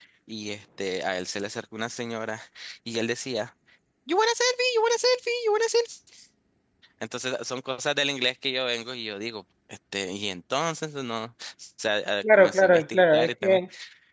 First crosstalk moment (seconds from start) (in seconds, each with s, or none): 12.4 s